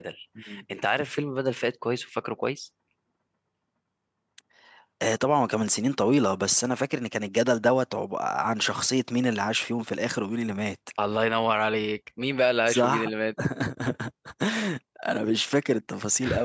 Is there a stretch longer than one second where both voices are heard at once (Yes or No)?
No